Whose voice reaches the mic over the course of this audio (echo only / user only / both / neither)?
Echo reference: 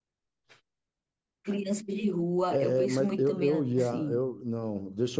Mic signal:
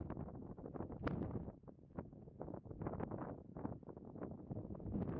neither